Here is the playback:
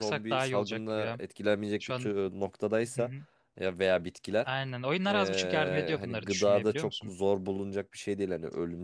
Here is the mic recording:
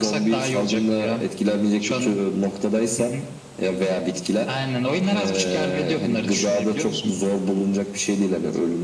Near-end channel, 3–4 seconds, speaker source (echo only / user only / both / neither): echo only